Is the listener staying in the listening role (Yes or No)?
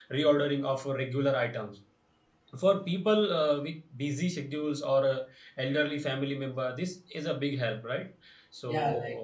No